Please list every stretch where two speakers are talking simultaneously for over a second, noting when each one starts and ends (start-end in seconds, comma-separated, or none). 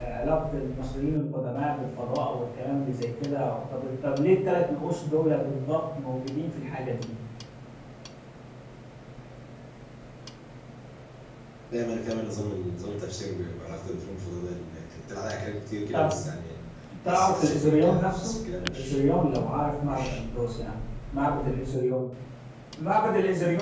17.1-19.0